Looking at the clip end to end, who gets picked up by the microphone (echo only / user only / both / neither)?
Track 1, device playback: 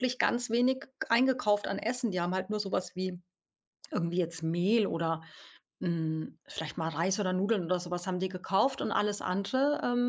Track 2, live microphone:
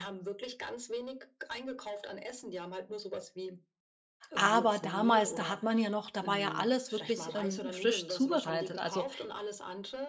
both